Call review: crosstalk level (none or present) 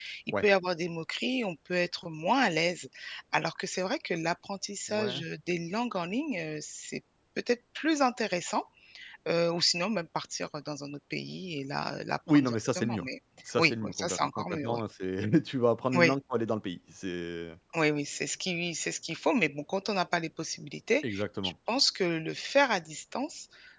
present